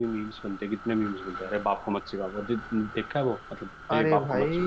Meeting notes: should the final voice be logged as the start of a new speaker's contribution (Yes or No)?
Yes